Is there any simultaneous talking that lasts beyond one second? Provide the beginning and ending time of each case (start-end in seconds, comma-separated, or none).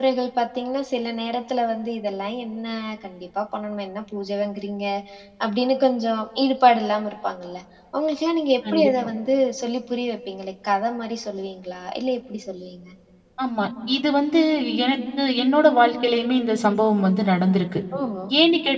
none